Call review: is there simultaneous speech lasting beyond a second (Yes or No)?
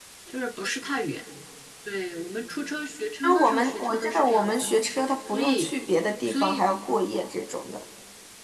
Yes